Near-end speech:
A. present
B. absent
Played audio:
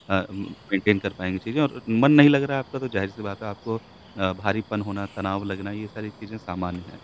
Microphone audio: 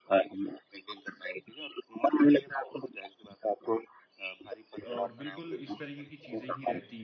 A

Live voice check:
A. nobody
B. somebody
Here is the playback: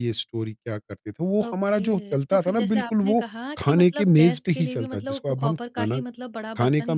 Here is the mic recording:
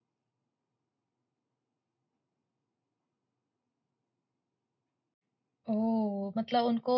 B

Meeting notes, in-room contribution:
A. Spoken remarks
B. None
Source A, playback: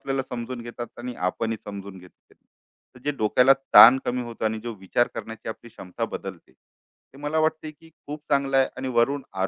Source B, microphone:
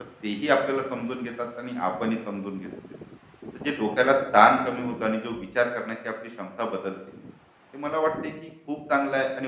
B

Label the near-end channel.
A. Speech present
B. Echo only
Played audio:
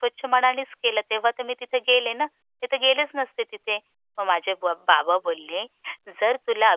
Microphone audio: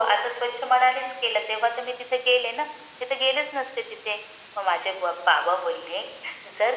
B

